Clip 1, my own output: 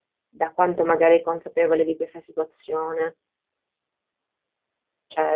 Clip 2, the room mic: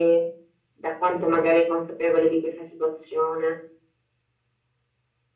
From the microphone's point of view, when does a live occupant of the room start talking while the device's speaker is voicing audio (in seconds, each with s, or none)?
none